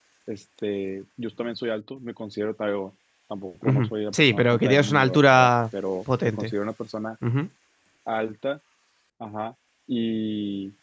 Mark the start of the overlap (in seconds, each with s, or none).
3.6 s